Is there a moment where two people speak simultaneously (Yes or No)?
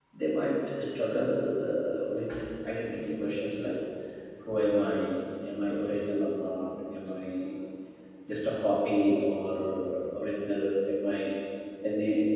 No